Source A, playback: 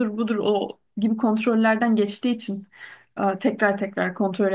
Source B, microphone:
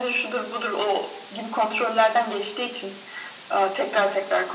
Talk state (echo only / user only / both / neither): echo only